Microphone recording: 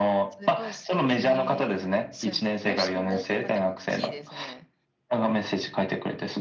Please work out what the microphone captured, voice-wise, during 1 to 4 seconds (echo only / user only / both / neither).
both